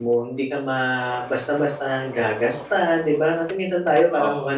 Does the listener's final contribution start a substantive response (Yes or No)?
No